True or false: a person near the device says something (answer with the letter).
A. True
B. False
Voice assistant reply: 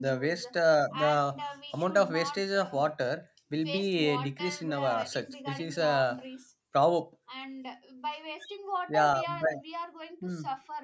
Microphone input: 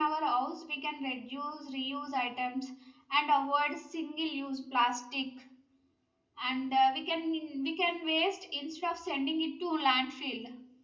A